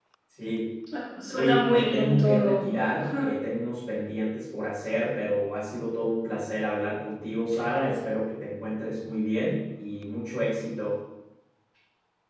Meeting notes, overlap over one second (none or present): present